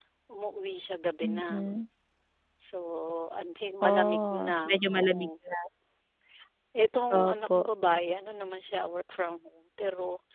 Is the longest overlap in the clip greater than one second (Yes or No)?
Yes